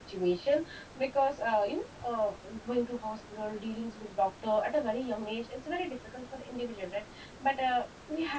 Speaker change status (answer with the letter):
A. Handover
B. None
B